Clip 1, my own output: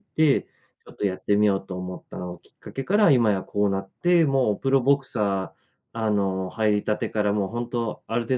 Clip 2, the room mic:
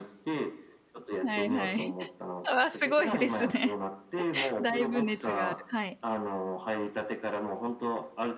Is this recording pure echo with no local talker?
No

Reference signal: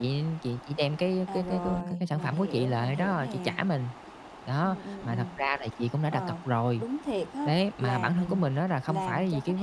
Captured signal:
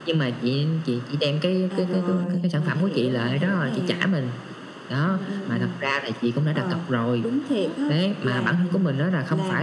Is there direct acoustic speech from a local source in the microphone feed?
Yes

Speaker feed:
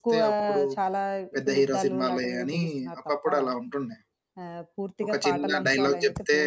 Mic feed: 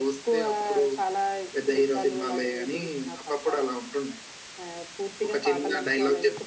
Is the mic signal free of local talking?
Yes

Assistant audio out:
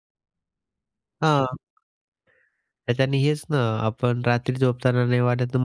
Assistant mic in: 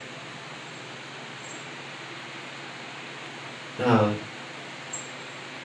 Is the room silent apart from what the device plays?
No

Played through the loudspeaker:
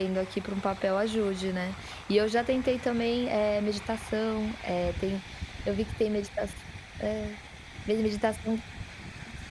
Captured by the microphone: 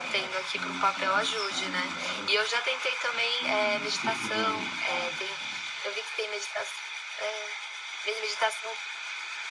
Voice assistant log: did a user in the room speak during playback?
Yes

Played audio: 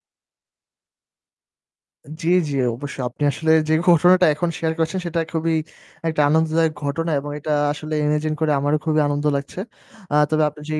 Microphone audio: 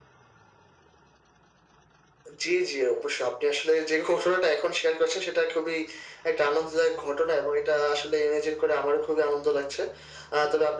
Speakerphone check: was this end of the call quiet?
Yes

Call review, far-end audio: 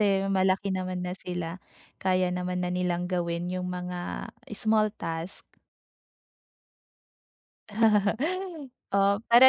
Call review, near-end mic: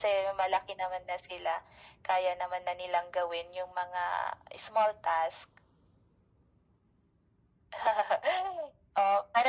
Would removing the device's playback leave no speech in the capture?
Yes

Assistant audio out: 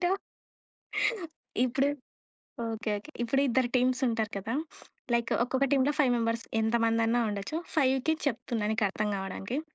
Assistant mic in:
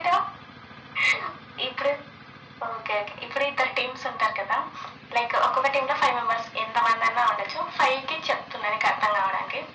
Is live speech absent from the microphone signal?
Yes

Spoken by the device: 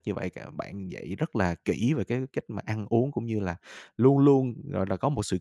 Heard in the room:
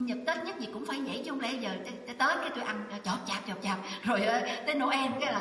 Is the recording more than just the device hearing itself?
Yes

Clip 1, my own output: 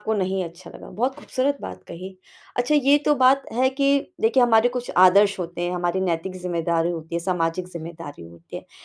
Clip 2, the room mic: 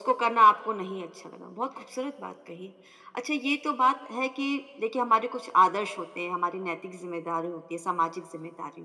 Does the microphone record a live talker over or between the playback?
No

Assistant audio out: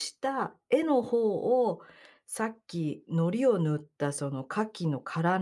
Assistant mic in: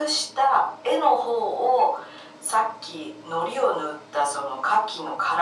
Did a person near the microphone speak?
No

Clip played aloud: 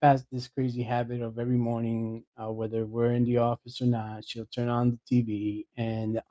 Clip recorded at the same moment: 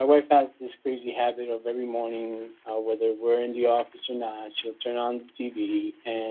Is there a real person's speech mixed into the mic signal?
No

